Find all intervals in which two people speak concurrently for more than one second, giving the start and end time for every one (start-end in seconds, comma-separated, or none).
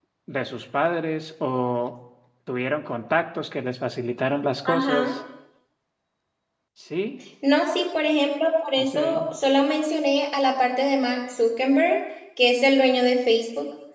none